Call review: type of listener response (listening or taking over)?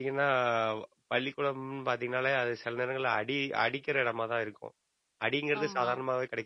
listening